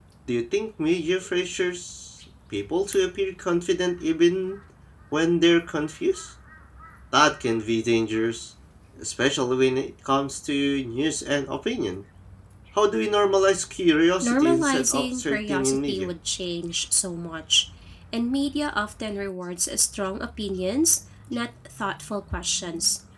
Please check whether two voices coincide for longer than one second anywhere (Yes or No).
Yes